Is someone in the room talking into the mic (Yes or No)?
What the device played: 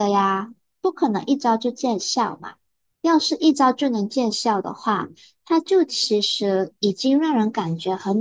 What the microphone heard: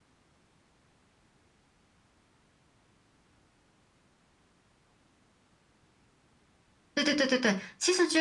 Yes